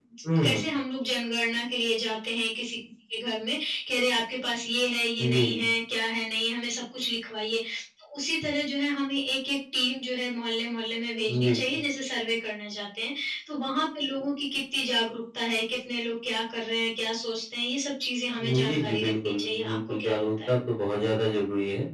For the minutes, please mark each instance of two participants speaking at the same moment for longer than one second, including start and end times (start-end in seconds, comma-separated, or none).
18.4-20.5